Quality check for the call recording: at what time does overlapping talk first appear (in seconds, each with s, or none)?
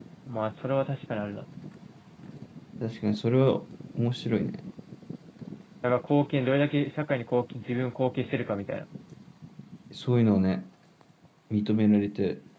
none